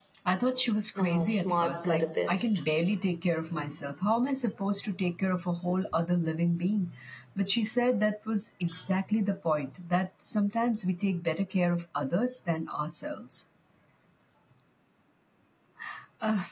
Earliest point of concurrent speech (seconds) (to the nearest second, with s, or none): 1 s